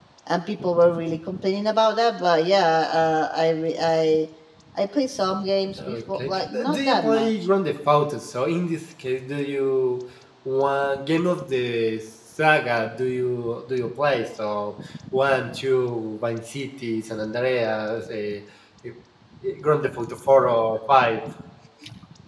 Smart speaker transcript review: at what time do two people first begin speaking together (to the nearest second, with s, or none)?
6 s